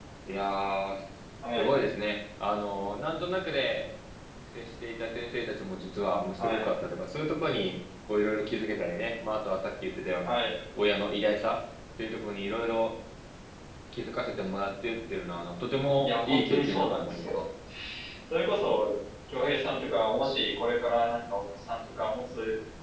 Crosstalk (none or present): present